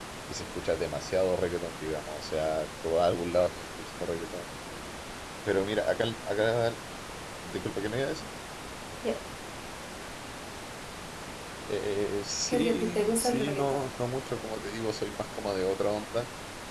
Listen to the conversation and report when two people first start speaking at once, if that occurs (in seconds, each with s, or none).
12.5 s